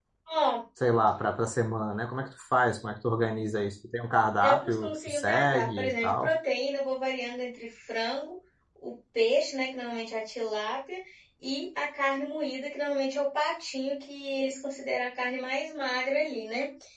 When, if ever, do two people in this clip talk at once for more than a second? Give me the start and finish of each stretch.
4.4-6.3

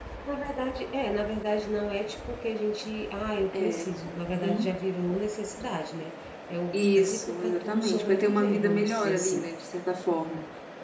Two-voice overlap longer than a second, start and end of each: 6.7-9.5

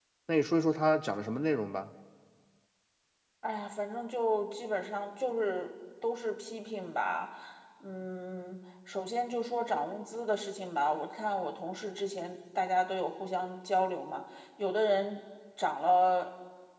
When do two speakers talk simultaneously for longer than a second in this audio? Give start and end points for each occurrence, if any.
none

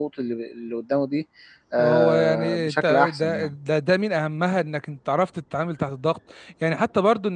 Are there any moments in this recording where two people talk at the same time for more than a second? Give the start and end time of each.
1.8-3.5

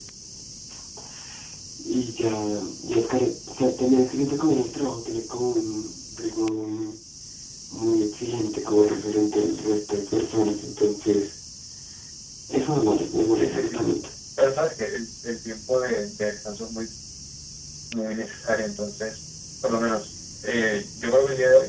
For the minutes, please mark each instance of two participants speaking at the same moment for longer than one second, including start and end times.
none

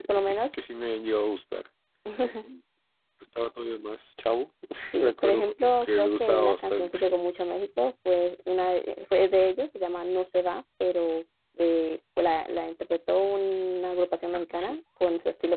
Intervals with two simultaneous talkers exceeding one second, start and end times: 5.0-7.0

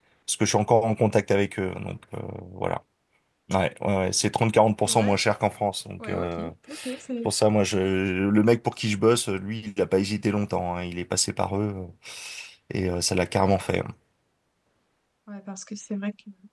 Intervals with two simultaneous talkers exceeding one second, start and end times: none

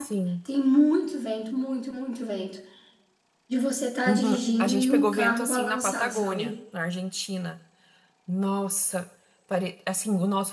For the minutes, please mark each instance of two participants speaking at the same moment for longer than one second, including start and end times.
4.1-6.5

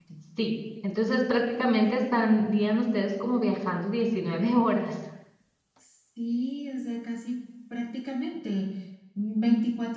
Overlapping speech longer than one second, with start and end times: none

